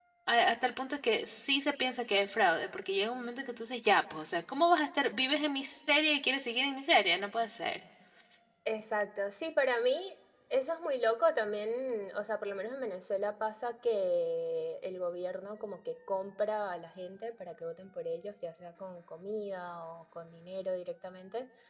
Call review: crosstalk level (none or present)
none